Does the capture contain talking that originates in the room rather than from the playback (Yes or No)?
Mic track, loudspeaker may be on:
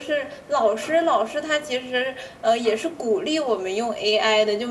No